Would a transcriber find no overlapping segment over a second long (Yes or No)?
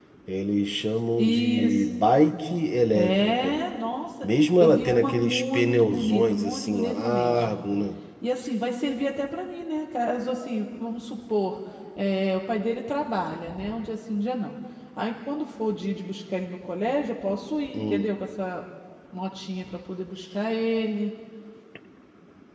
No